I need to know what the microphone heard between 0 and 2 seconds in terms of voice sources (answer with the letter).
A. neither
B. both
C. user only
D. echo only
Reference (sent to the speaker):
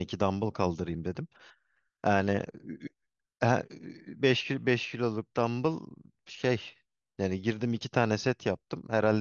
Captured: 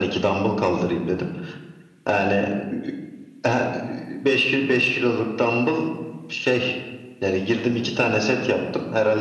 D